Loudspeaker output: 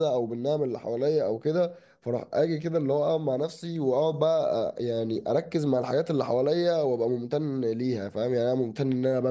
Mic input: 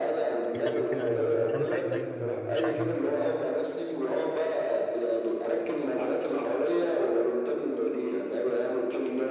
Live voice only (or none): يخلي كده إن الإنسان سعيد دايما ومش عايل هم حاجة